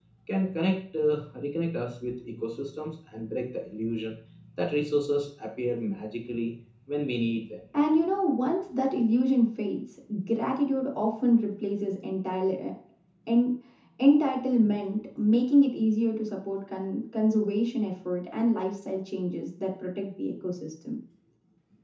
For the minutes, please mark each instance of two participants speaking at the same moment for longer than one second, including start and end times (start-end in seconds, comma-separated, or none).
none